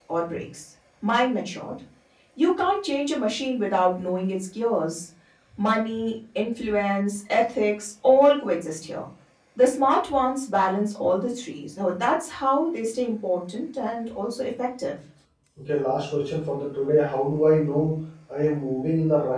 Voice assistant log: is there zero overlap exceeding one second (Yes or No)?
Yes